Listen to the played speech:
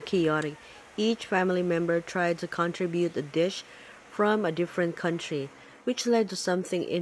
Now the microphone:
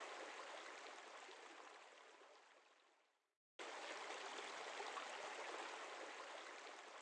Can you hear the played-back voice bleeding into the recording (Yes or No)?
No